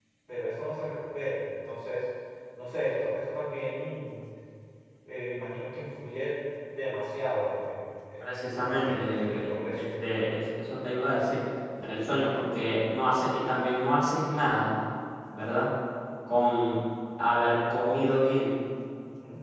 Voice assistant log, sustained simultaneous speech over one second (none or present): present